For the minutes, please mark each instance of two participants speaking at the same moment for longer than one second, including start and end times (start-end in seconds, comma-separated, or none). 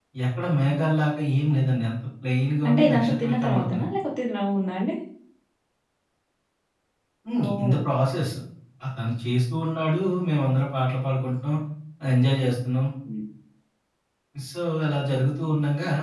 2.7-3.9